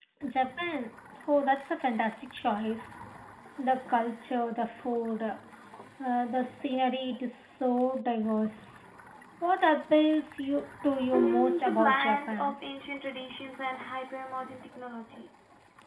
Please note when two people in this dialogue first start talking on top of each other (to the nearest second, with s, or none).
11 s